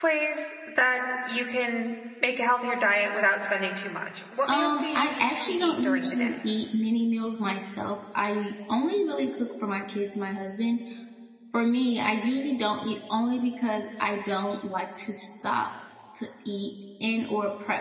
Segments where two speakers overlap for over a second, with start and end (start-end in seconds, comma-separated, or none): 4.5-6.3